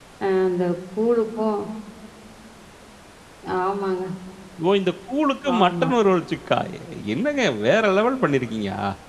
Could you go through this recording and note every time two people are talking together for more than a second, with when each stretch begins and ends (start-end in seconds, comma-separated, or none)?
none